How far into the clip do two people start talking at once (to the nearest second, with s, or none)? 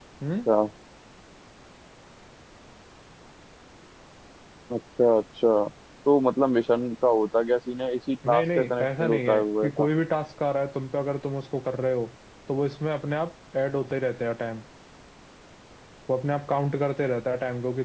8 s